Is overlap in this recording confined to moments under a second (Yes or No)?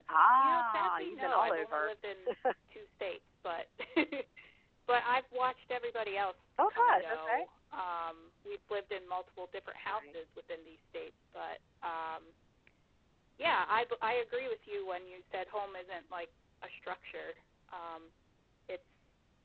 No